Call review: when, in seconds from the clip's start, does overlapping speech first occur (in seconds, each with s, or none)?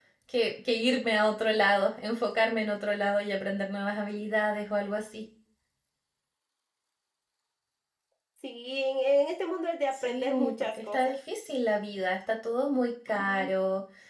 9.9 s